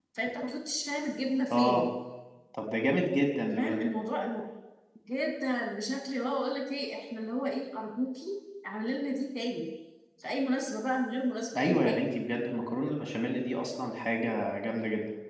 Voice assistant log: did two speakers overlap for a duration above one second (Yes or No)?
No